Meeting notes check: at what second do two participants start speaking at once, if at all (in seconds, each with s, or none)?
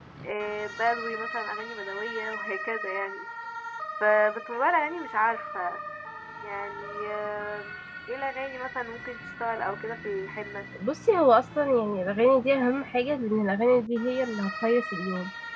none